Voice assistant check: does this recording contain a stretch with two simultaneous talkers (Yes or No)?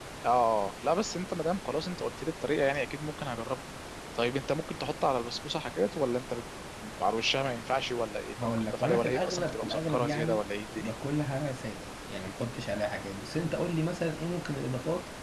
Yes